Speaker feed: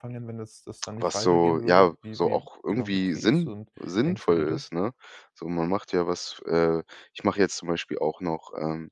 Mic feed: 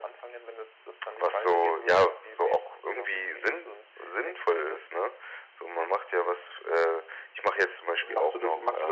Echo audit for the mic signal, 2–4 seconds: echo only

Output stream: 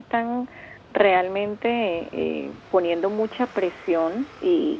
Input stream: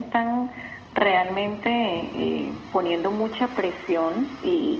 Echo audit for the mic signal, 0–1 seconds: echo only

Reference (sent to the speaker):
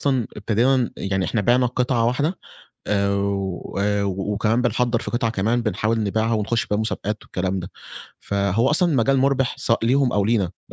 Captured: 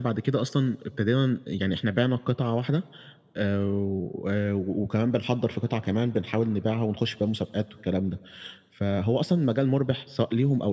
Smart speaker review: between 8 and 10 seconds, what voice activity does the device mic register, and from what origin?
echo only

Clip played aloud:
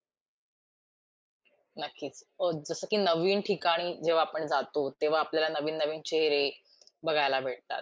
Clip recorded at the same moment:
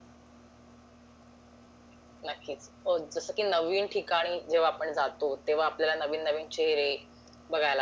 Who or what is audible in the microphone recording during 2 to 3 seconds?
echo only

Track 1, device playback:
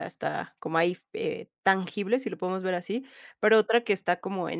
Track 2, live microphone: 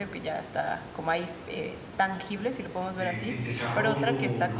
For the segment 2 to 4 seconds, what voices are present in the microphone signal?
both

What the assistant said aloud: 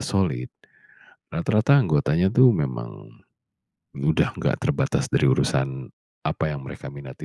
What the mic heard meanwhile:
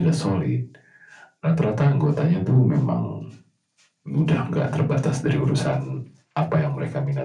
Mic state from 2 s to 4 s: echo only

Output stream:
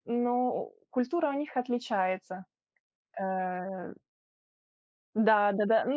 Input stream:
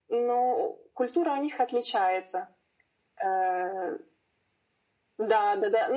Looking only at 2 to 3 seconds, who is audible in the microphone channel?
echo only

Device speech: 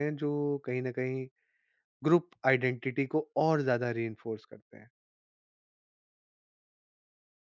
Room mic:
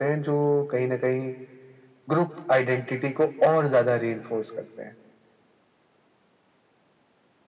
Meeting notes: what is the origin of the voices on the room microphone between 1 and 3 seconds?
echo only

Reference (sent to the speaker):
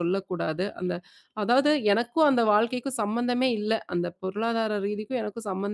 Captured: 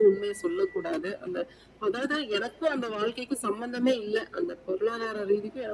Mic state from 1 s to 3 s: echo only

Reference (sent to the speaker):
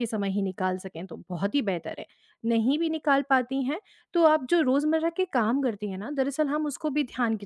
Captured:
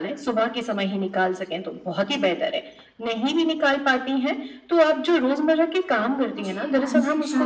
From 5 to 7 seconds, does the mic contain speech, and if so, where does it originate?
both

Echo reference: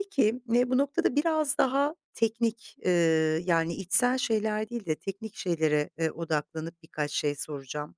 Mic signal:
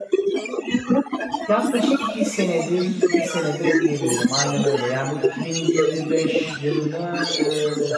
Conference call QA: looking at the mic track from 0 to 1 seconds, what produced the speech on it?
echo only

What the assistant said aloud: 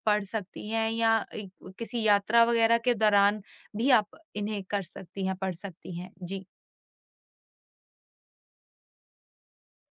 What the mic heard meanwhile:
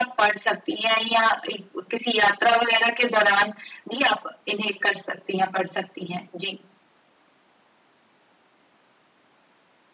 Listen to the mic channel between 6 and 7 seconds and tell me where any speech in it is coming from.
echo only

